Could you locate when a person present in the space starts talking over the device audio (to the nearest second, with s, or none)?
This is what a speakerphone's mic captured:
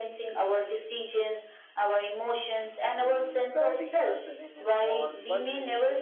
3 s